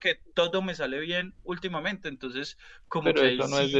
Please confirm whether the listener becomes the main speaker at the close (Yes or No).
Yes